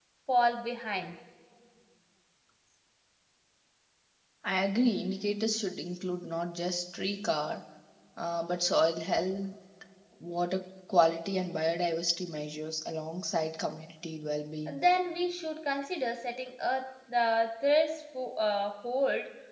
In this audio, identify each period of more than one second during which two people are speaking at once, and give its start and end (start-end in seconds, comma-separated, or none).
none